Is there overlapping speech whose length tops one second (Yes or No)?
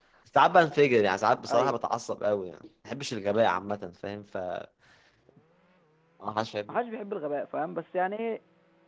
No